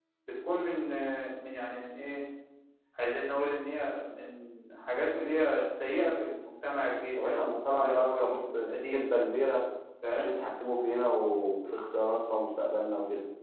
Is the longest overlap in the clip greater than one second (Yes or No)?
Yes